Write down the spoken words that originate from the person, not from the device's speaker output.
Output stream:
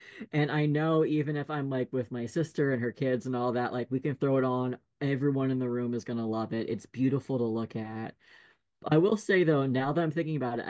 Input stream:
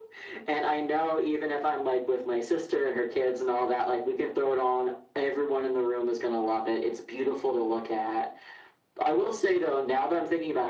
none

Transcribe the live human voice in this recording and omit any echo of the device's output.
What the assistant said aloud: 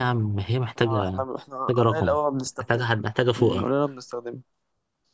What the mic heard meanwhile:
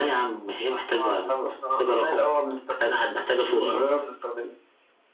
none

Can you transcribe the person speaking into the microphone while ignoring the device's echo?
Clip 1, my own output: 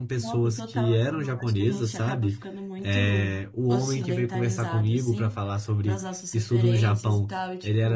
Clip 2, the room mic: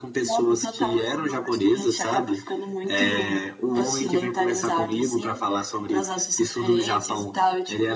none

